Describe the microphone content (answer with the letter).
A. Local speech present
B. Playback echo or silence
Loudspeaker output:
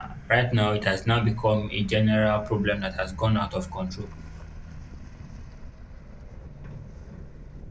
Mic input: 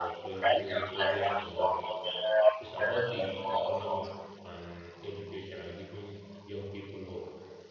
A